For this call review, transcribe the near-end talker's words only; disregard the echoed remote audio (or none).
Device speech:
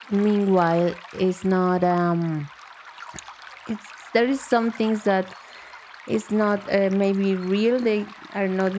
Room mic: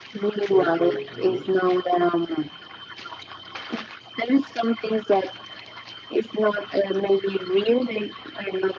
purple, and blue.